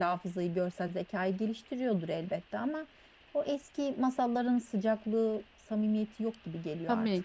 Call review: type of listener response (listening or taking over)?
taking over